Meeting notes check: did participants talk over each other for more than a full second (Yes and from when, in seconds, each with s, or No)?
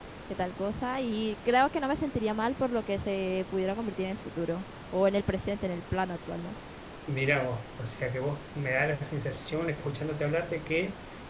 No